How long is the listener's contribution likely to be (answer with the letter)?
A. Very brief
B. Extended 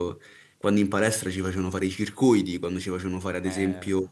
A